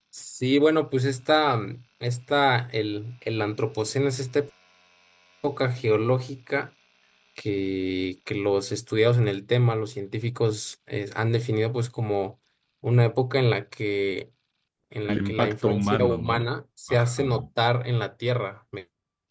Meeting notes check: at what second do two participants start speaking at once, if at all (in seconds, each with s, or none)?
15.0 s